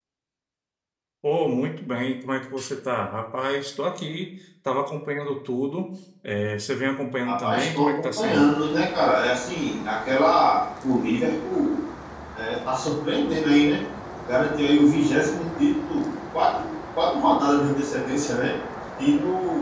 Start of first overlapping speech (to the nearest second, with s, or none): 7 s